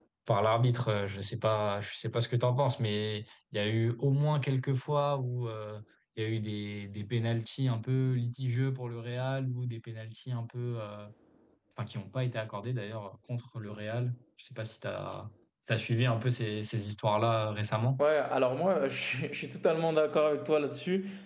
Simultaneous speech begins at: none

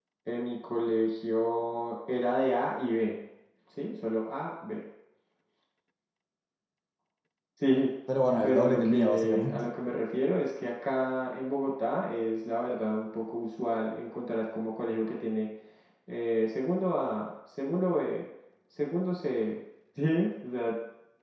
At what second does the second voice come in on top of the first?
8.4 s

